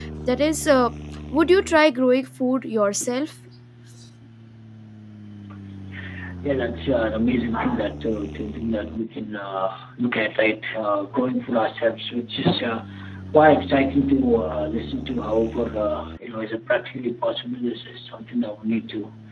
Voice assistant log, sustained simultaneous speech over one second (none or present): none